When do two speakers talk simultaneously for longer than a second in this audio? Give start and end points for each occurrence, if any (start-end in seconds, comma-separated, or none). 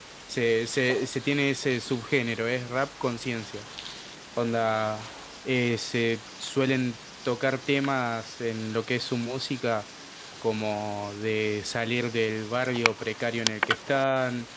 none